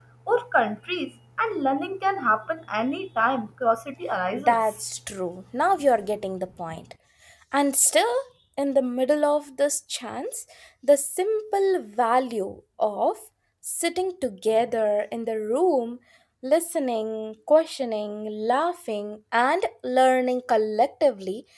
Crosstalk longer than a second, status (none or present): none